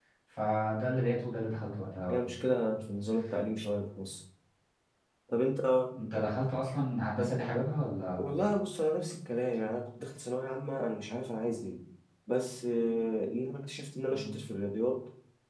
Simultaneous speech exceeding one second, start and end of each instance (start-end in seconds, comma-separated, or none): none